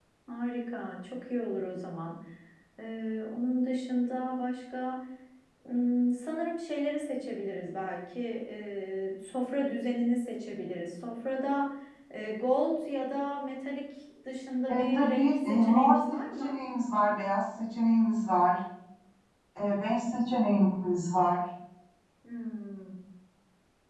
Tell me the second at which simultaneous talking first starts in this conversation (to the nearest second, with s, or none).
15 s